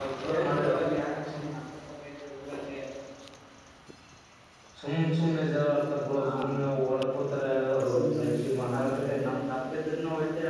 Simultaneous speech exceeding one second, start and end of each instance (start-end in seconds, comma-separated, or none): none